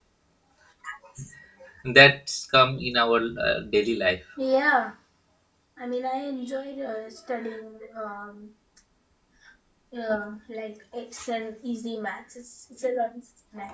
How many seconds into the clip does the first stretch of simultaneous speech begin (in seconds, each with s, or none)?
none